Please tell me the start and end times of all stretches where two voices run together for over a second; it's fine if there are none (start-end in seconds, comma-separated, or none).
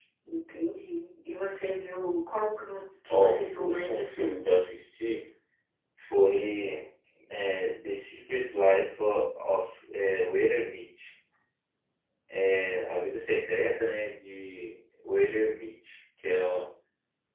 3.1-4.6